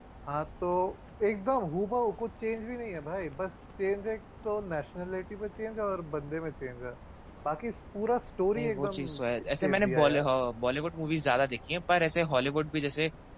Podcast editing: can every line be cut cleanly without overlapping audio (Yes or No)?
No